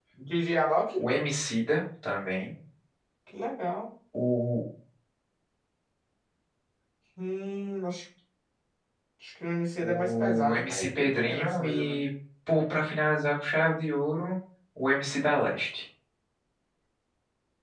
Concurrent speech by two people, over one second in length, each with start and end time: 9.8-12.0

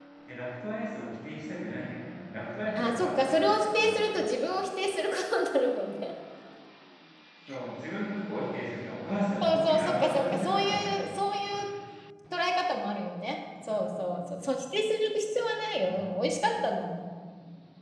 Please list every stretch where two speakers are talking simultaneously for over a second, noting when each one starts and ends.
2.8-4.1, 9.4-11.0

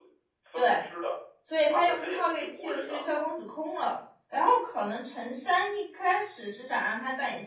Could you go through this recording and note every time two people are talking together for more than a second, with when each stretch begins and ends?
1.7-3.2

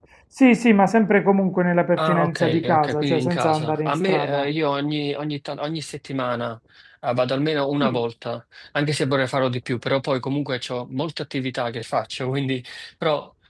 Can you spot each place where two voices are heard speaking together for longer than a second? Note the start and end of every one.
2.0-4.5

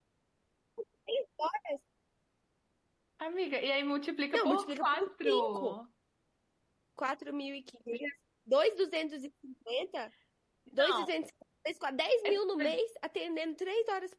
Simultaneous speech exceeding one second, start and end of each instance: 4.3-5.8

